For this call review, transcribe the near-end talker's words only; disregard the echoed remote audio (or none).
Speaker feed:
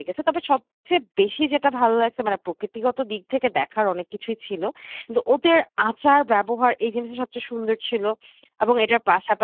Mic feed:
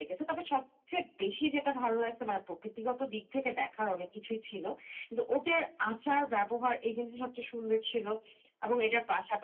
none